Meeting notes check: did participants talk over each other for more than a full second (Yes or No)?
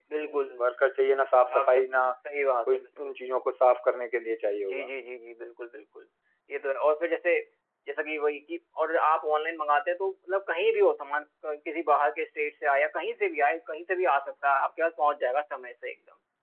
No